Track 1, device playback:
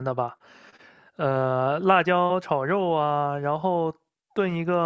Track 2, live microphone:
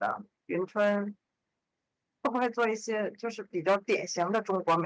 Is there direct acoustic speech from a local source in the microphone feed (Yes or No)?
Yes